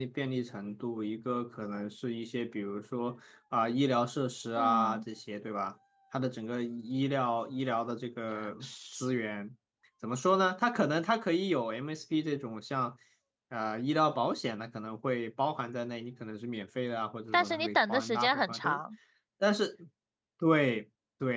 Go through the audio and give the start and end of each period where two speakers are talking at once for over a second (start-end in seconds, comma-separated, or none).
17.3-18.8